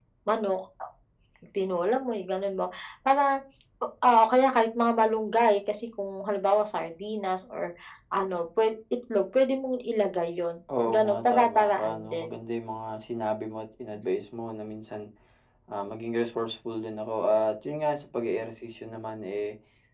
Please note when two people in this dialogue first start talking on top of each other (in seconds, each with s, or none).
10.7 s